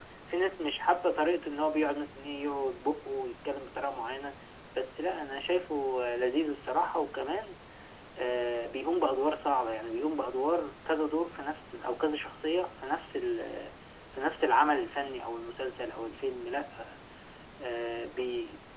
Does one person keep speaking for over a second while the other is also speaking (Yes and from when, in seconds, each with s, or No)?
No